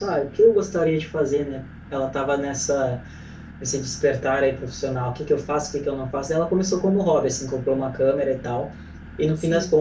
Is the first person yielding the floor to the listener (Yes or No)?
No